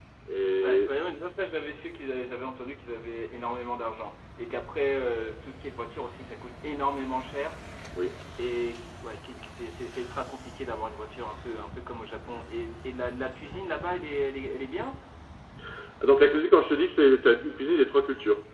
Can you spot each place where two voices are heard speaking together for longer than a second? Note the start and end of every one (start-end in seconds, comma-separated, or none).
none